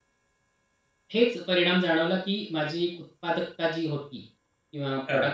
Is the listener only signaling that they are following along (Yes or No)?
Yes